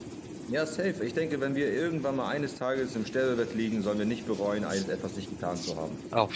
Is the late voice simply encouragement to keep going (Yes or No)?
No